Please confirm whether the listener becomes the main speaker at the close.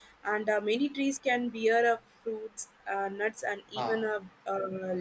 No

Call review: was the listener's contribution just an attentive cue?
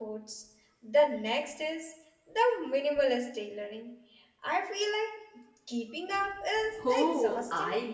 No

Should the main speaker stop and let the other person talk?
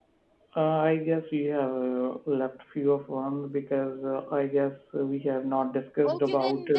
Yes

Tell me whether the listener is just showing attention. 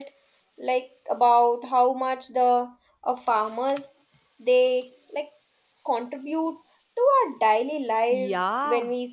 No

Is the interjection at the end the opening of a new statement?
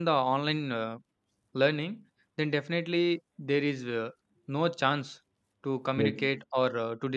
No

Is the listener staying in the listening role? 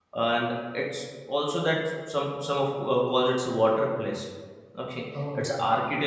Yes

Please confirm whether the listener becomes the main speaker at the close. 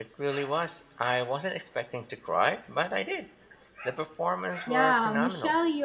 Yes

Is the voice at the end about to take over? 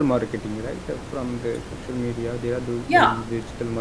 No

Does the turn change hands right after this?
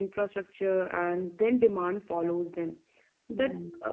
No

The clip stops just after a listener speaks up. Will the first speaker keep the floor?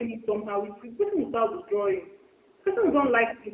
Yes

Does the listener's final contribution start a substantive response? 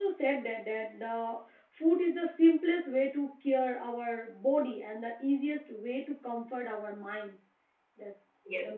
Yes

